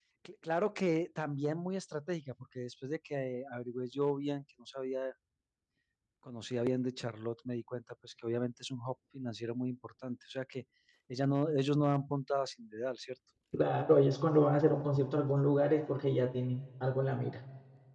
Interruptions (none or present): none